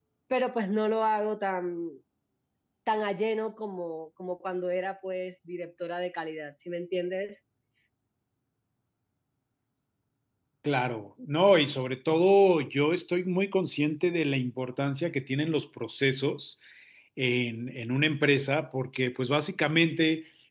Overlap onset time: none

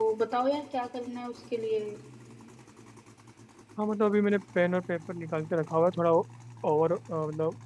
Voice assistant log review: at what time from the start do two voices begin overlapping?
none

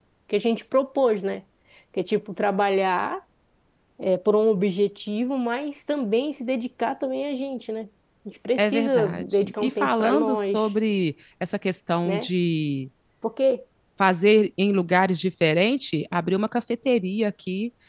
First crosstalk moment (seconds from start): 8.6 s

